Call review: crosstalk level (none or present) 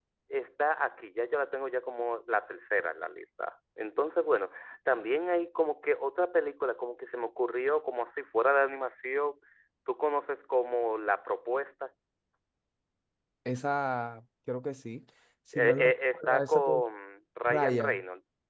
present